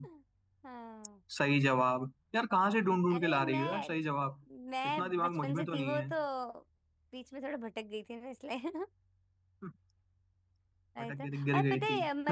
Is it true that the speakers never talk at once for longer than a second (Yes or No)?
No